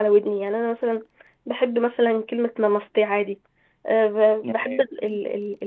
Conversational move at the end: listening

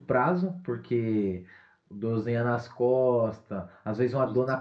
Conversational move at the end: listening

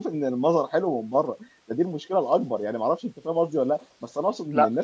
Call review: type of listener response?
listening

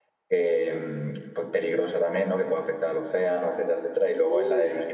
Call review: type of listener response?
listening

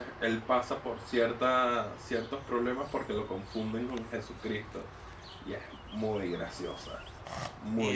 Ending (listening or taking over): taking over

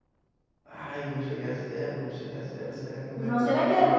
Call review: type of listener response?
taking over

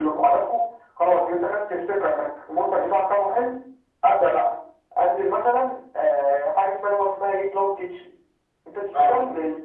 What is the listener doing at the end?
listening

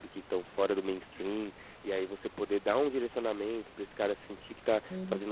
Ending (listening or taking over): listening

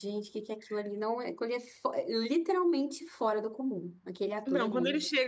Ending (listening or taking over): taking over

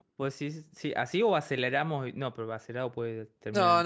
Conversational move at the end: taking over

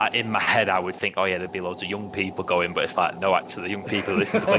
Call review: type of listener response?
listening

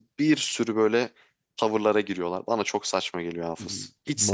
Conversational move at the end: taking over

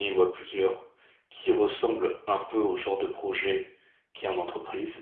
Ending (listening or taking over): listening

